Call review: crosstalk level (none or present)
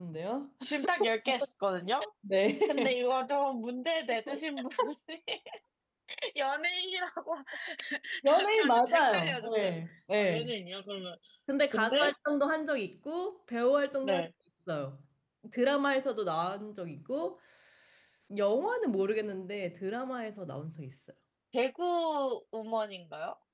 present